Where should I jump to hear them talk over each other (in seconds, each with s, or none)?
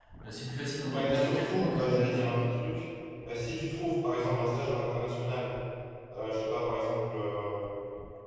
0.9 s